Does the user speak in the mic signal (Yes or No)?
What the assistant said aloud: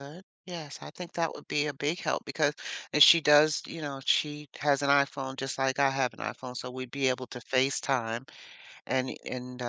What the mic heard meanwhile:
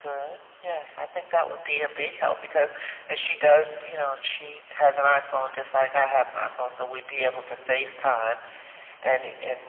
No